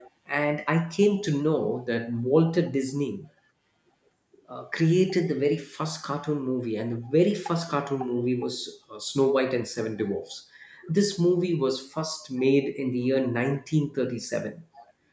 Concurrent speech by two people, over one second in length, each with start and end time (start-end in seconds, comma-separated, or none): none